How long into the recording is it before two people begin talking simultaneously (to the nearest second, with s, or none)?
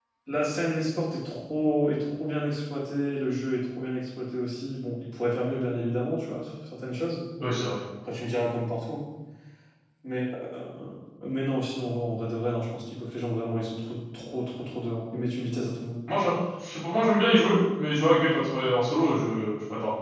none